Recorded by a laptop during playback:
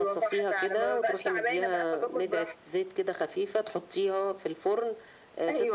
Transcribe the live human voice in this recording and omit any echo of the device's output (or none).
none